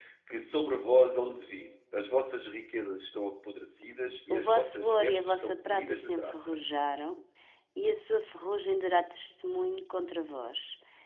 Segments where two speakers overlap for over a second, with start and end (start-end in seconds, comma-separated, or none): 4.3-6.5